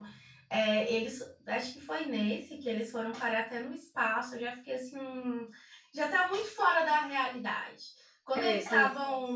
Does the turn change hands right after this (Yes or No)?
No